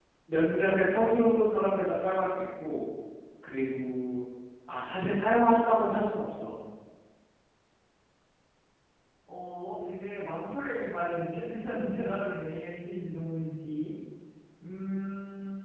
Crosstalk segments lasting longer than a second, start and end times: none

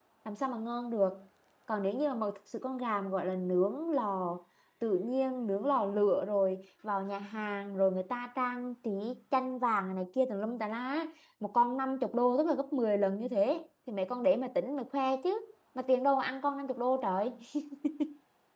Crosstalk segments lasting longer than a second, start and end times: none

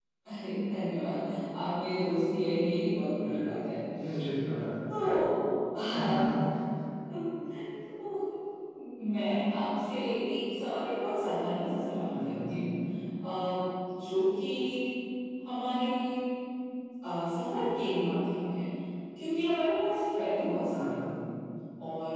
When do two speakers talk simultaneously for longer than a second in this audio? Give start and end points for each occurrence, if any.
none

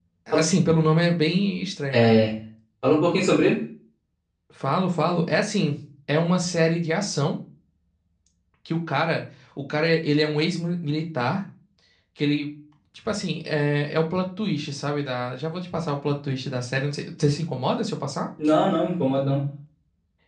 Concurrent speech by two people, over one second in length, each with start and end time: none

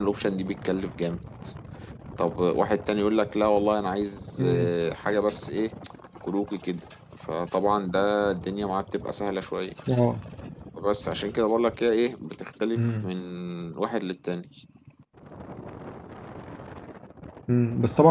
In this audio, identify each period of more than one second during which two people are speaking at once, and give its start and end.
none

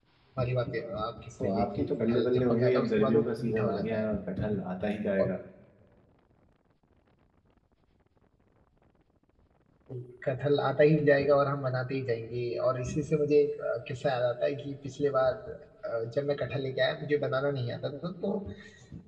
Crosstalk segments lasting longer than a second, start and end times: 1.4-4.2

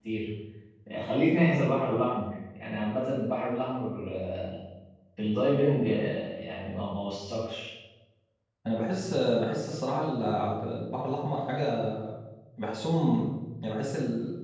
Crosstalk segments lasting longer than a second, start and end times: none

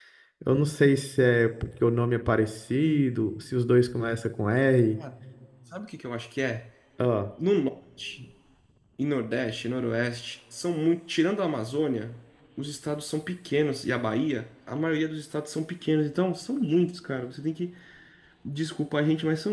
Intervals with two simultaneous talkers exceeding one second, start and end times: none

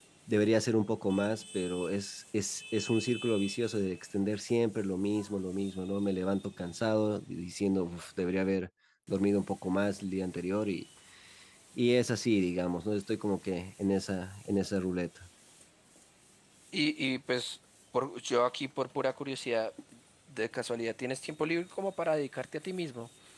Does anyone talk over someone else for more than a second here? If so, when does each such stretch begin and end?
none

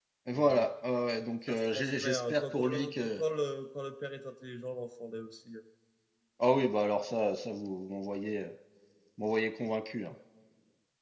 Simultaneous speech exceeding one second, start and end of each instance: 1.5-3.2

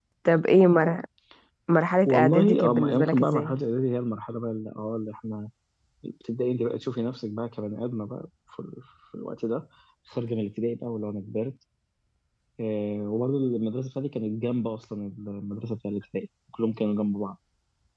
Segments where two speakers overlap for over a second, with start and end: 2.1-3.5

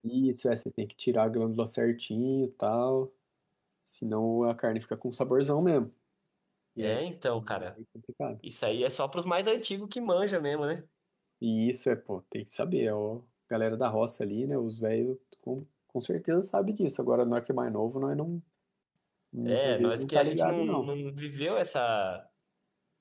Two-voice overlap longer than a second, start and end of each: 19.5-20.9

